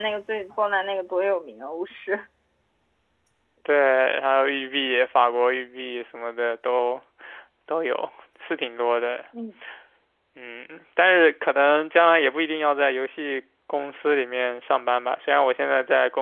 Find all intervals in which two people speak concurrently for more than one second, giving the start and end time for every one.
none

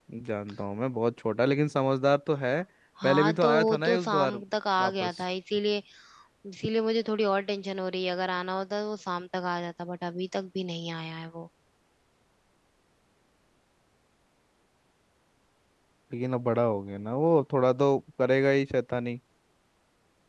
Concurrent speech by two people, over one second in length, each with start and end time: 3.0-4.4

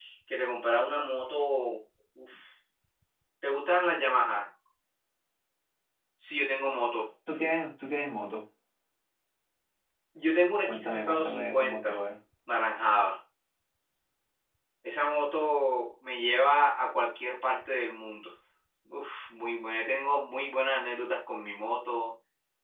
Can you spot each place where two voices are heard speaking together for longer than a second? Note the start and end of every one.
10.7-12.0

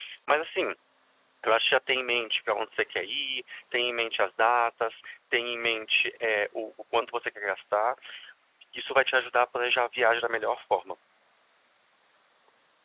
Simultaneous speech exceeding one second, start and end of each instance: none

